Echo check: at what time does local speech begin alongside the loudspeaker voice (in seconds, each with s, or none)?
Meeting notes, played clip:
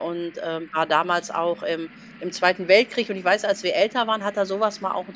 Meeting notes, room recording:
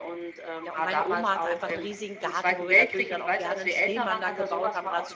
0.6 s